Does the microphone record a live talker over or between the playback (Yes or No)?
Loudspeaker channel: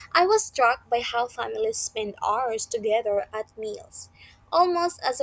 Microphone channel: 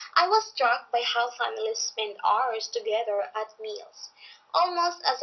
No